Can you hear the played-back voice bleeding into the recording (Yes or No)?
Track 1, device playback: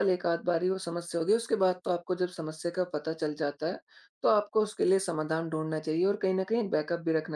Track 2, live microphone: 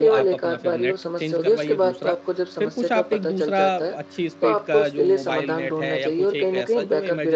Yes